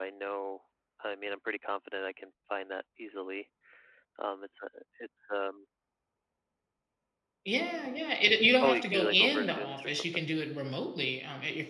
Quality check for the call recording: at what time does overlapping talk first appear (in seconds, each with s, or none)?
8.5 s